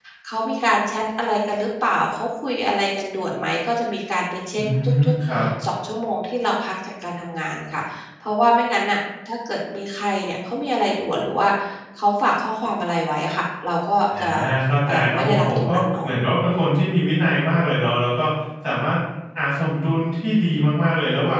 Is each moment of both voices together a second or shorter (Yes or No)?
No